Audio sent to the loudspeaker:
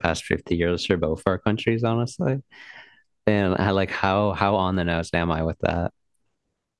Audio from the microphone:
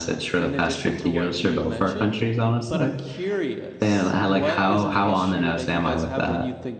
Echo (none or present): present